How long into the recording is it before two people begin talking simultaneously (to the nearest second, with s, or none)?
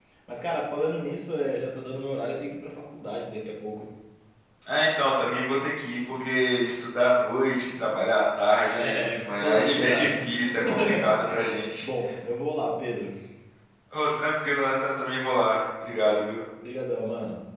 9 s